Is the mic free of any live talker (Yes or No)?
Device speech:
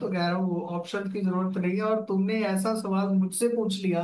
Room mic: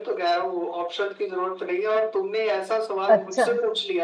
No